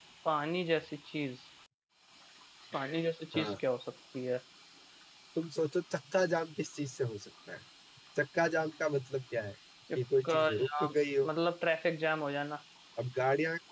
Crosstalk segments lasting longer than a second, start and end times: 9.9-11.3

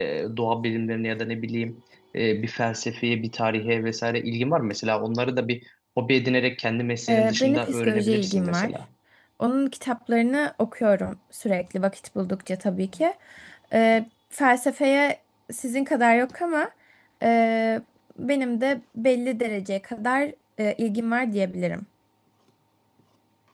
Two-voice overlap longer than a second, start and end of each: 7.1-8.7

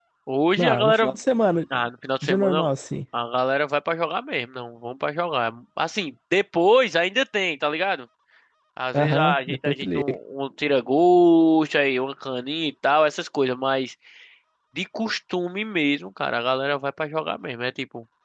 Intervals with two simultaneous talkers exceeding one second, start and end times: 8.9-10.2

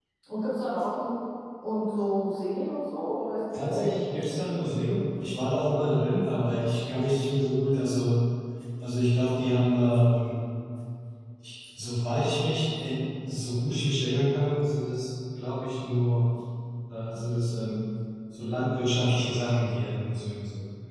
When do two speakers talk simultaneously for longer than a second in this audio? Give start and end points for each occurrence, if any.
3.5-4.8

